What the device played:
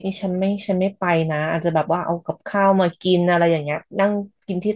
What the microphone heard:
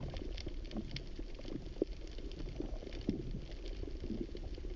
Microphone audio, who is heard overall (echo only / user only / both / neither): neither